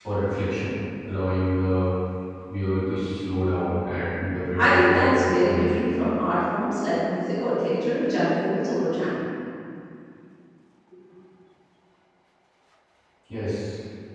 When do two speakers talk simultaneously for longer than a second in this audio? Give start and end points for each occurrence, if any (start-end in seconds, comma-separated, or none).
4.6-5.8